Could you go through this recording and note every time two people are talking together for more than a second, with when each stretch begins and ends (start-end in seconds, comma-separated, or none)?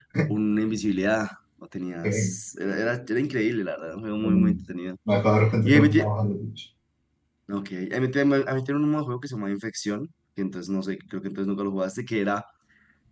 none